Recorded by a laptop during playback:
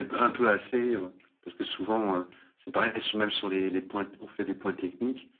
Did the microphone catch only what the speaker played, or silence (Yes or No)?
Yes